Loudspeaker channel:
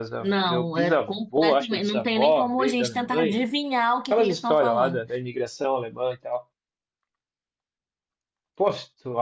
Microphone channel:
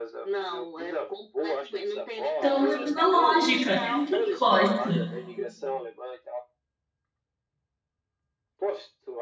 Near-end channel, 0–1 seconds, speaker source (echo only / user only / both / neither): echo only